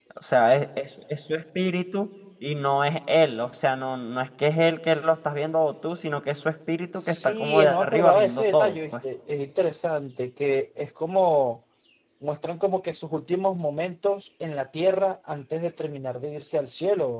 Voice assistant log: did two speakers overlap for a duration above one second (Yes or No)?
Yes